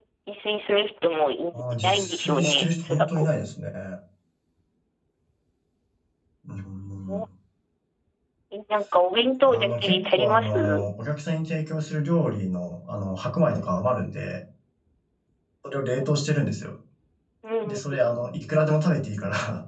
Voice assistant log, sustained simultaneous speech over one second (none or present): present